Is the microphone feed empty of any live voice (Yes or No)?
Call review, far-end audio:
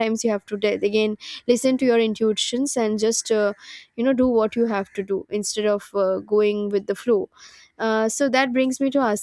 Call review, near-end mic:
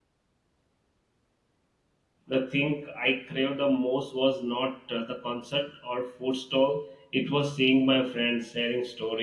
No